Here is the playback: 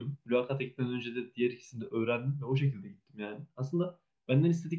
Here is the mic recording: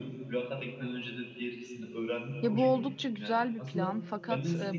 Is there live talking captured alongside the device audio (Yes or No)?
Yes